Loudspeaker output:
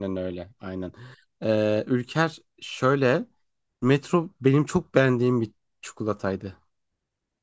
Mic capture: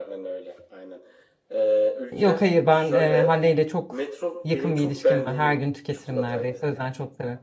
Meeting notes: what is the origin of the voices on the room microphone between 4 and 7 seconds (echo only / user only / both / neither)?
both